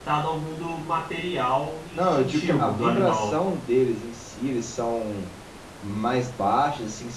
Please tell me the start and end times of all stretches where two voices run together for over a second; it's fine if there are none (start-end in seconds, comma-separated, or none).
1.9-3.4